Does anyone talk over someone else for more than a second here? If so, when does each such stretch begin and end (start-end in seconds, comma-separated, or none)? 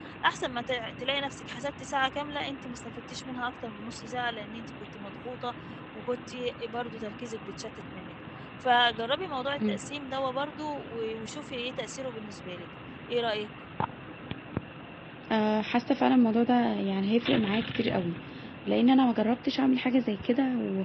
none